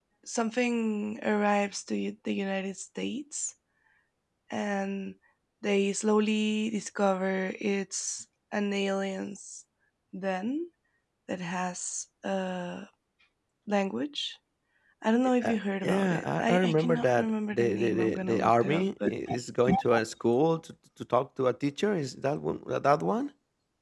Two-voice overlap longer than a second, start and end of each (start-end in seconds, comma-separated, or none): 15.4-19.1